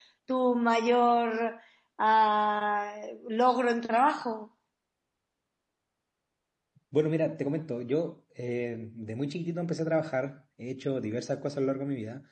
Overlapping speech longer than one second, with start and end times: none

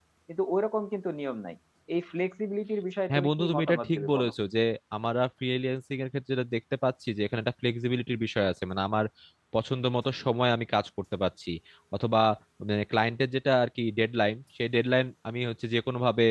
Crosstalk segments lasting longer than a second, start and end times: 3.1-4.3

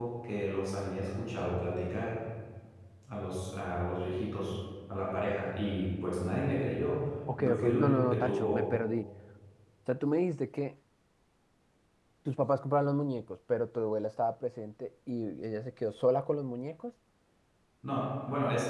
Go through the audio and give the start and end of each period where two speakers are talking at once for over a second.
7.4-8.7

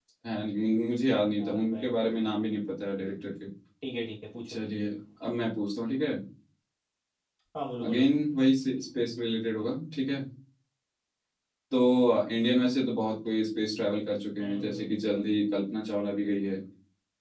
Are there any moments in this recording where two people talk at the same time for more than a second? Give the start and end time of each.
none

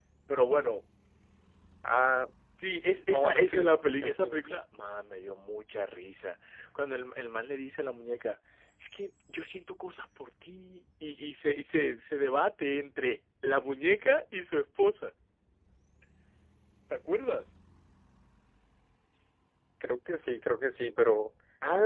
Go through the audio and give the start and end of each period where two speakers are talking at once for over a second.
3.1-4.6

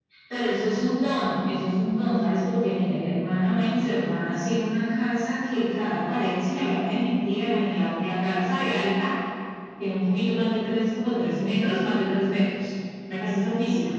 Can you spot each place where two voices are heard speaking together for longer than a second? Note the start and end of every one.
none

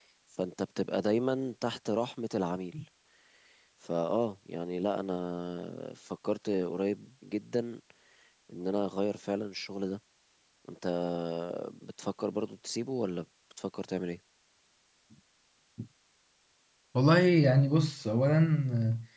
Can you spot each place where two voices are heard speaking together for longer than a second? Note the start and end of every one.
none

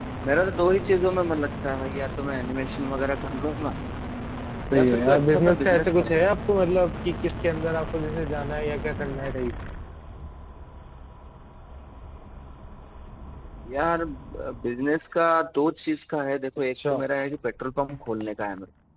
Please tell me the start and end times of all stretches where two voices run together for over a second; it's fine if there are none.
4.7-6.3

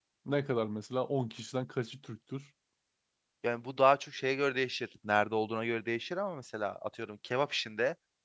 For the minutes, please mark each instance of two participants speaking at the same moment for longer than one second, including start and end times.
none

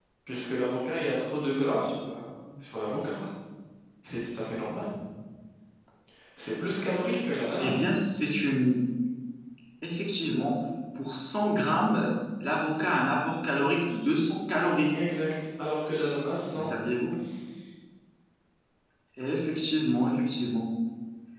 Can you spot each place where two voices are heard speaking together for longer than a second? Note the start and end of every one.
none

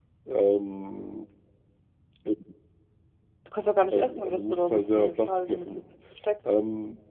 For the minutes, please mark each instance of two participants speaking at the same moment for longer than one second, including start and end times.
3.9-5.8

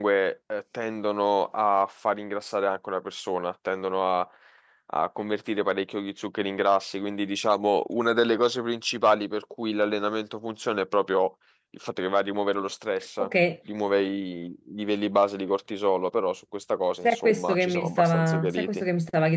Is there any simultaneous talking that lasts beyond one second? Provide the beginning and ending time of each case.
17.0-18.8

